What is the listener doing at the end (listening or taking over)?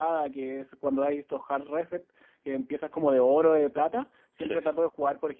listening